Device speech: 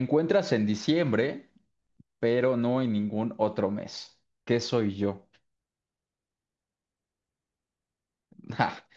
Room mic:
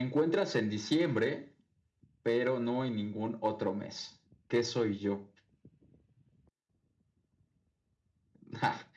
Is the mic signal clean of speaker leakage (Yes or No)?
No